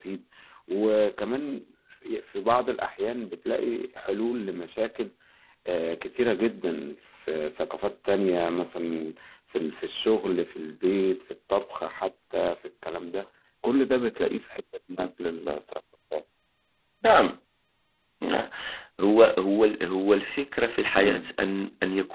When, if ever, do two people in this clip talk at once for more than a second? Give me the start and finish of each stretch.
none

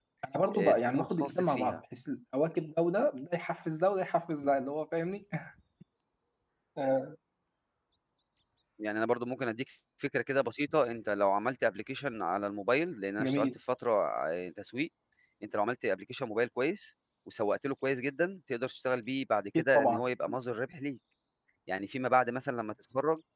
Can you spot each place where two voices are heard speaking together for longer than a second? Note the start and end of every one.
0.5-1.8

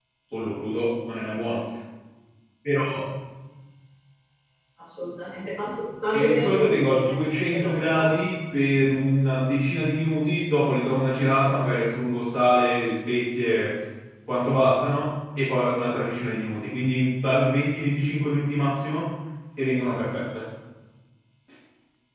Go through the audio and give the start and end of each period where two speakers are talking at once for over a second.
6.1-8.1

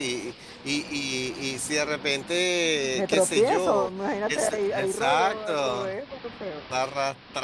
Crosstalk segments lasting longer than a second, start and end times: 2.9-5.9

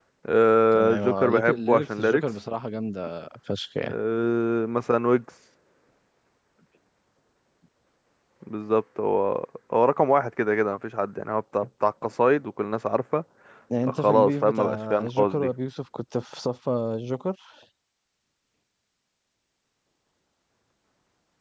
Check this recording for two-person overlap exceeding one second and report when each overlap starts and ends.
0.7-2.3, 13.8-15.5

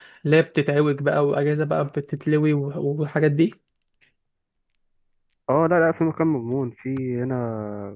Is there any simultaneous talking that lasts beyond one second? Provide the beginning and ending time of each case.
none

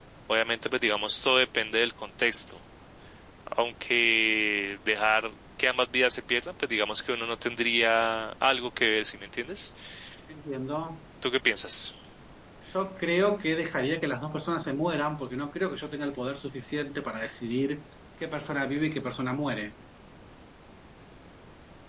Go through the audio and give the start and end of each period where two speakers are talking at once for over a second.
none

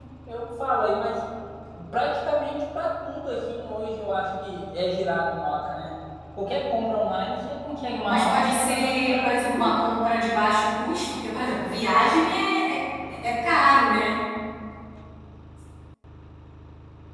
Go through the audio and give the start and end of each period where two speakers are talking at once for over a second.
8.0-9.8

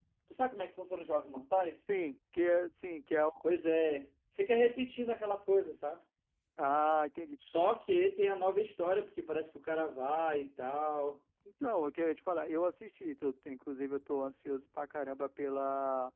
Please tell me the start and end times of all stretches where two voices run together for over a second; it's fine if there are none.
none

